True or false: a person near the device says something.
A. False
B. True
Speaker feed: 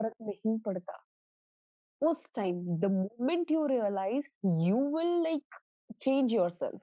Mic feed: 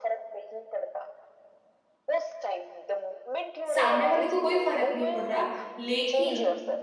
B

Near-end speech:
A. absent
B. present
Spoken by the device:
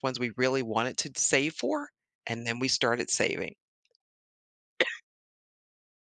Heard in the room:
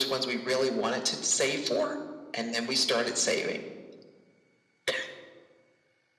A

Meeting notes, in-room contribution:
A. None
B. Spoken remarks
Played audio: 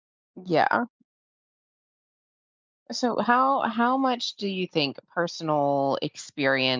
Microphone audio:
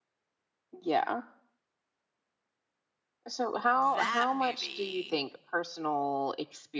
B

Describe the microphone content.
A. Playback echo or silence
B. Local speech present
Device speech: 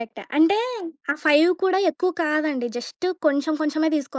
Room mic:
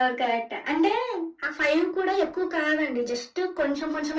A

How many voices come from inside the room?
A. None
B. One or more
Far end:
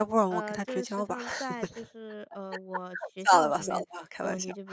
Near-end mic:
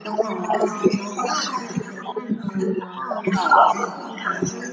B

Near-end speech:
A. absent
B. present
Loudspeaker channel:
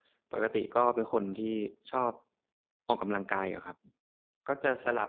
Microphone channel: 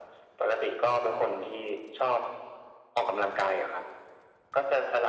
A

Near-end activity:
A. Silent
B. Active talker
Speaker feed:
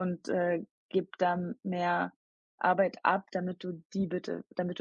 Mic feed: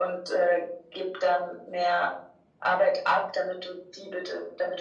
A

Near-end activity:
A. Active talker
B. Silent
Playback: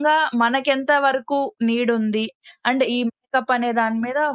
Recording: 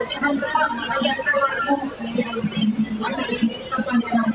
B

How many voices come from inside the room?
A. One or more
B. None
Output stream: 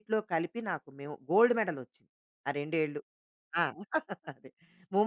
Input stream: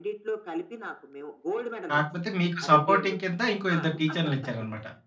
A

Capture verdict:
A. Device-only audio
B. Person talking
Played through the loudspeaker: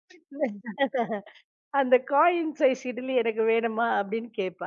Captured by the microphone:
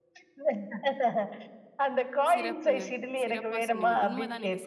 B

